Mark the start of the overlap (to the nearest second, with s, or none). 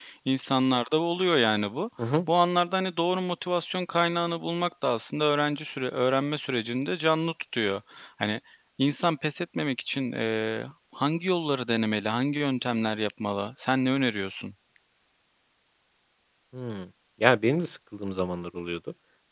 none